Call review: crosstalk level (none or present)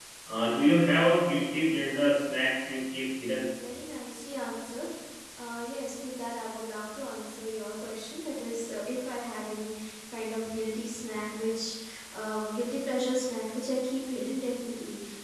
none